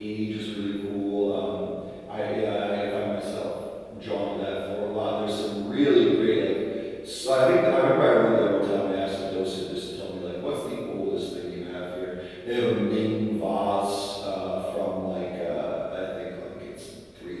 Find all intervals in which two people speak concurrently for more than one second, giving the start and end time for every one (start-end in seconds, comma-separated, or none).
none